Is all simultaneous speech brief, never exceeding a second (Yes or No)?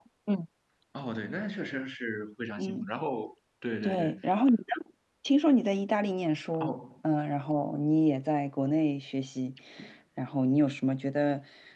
Yes